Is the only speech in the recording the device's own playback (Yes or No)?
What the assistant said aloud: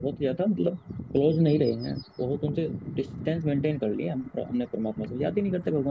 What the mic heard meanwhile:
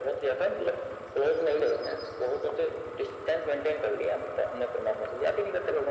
Yes